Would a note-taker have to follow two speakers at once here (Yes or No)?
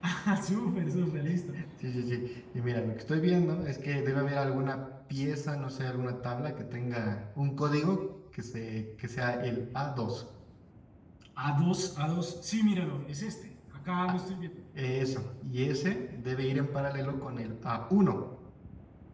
No